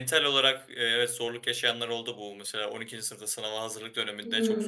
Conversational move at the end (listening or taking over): listening